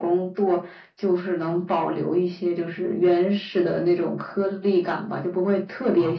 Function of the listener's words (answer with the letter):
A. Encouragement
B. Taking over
A